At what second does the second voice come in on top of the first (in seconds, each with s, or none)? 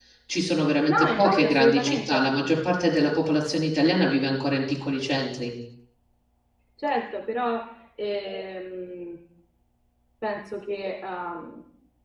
0.9 s